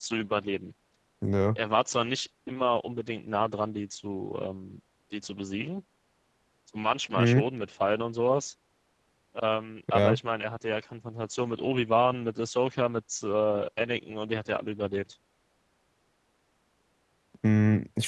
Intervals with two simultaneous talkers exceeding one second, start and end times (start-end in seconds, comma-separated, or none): none